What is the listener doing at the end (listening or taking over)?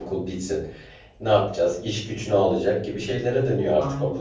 taking over